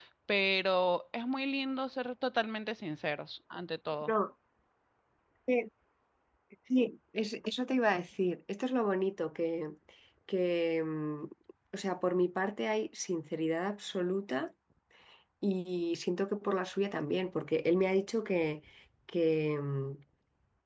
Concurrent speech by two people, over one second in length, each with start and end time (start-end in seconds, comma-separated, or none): none